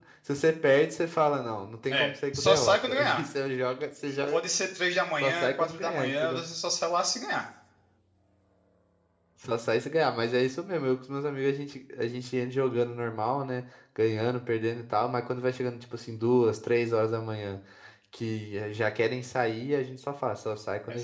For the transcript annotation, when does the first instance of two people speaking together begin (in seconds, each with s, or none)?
1.9 s